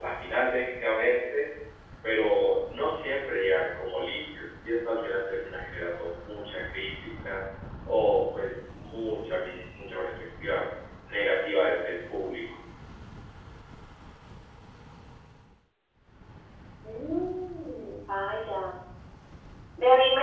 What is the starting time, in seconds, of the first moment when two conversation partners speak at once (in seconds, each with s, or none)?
none